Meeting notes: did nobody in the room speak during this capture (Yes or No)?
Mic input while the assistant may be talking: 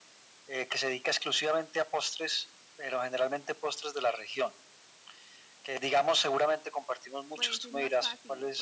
No